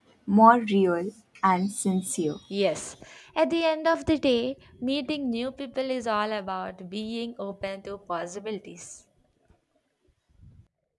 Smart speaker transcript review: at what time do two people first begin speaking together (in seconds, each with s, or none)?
none